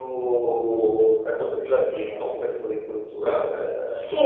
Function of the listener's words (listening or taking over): taking over